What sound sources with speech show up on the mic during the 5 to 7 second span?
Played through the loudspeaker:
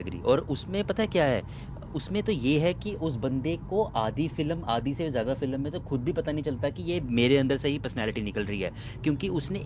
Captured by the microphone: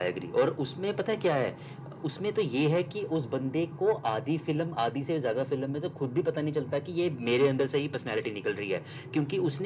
echo only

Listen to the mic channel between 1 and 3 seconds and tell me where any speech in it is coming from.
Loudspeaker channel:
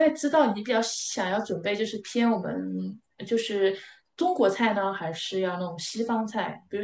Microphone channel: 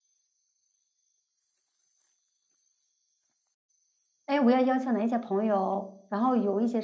neither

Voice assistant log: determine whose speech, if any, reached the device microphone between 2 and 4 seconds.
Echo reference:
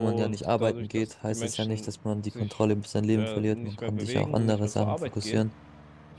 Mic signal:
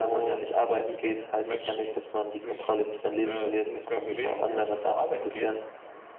echo only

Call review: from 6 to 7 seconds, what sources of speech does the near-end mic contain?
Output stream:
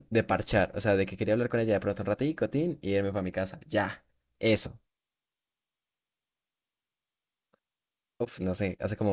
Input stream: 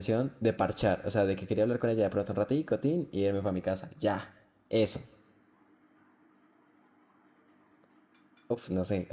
neither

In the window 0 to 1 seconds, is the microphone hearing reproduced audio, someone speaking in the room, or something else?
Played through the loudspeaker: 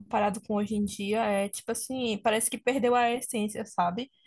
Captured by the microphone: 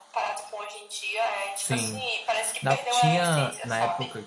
echo only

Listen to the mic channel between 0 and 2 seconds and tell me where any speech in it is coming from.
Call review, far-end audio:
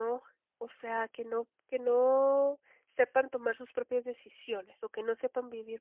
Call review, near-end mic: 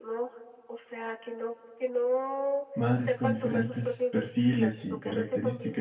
echo only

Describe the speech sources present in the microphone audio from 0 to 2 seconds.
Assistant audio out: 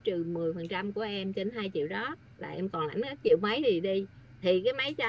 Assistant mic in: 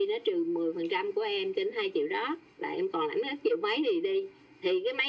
echo only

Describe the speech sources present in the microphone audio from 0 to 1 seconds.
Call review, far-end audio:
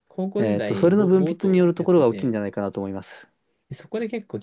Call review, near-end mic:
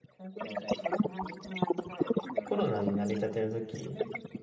echo only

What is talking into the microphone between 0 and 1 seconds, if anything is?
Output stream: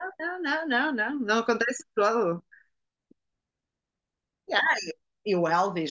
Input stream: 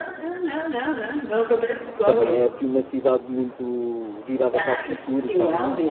echo only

